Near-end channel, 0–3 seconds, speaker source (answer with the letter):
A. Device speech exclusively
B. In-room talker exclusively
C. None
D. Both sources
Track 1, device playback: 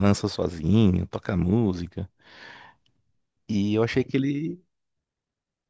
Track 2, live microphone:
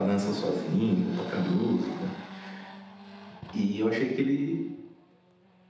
A